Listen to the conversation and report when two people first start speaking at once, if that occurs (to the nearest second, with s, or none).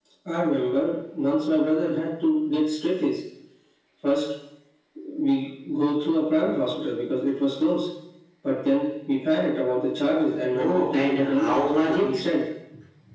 11 s